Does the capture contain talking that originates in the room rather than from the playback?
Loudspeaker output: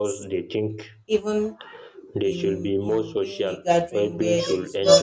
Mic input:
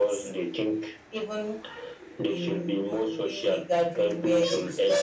No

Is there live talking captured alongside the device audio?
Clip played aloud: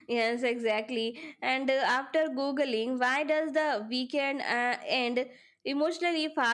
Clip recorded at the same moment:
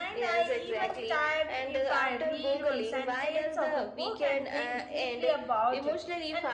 Yes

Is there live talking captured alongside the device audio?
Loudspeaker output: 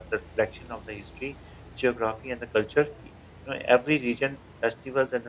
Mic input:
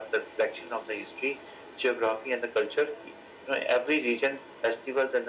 No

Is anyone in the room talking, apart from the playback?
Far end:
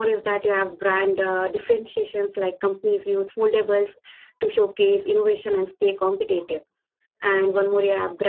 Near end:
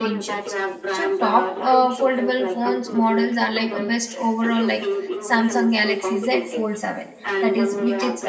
Yes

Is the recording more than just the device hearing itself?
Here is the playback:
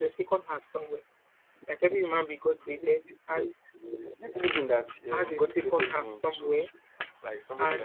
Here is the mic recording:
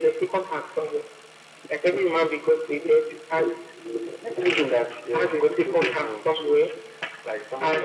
No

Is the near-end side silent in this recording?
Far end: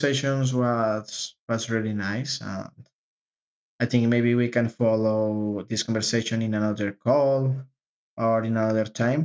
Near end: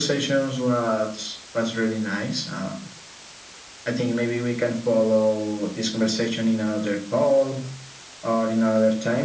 Yes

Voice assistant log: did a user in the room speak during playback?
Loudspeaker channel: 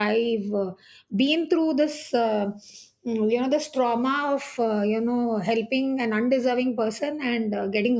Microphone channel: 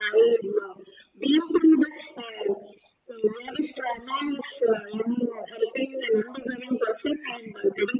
No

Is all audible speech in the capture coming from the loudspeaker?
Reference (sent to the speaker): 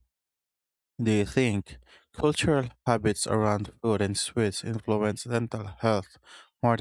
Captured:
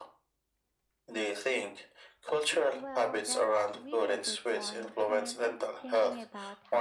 No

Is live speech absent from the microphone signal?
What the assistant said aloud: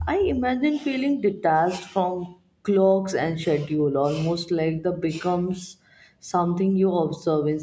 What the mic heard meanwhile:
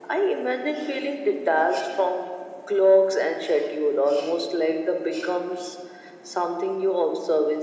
Yes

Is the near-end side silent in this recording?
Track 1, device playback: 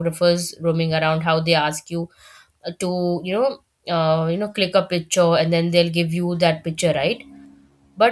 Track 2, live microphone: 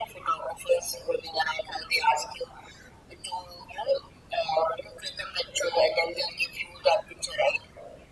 Yes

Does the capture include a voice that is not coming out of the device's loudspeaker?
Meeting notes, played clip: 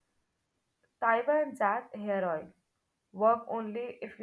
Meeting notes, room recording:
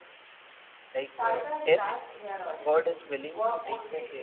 Yes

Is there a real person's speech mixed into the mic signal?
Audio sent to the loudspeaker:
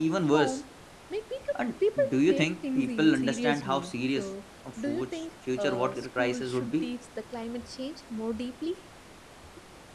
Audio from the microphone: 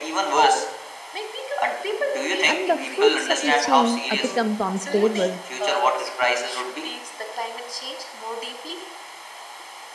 Yes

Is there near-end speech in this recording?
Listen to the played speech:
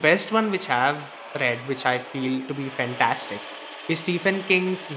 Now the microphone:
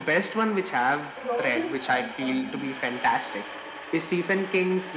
Yes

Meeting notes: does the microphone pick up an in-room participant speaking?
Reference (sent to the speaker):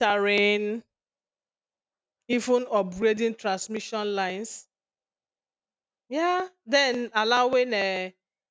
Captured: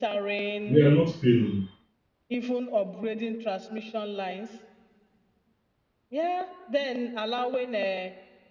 Yes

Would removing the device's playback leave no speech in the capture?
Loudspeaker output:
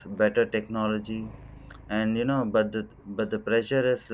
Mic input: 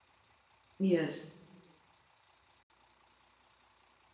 No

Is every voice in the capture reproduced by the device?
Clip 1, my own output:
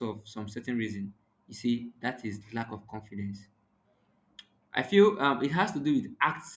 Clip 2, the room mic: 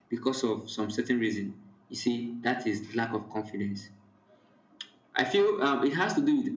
Yes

